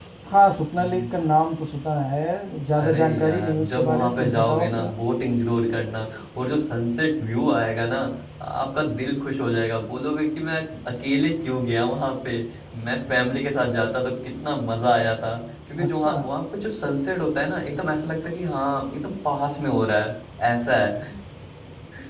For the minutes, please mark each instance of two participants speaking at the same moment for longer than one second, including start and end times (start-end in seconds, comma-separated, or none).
2.8-4.9